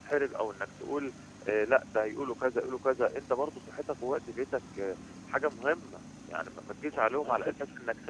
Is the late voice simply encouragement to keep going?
Yes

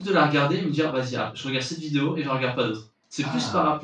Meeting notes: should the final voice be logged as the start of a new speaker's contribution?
No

